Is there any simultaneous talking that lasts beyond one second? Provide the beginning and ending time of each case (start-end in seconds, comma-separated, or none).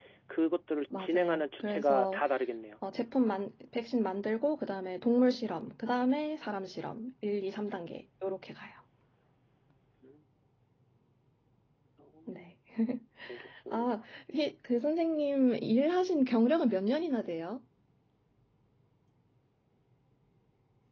1.0-2.2